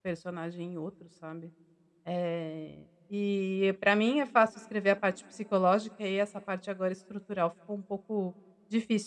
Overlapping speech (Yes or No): No